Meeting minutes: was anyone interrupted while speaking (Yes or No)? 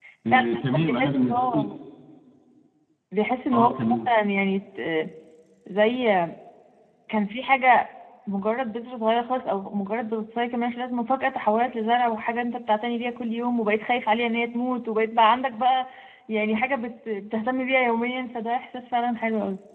Yes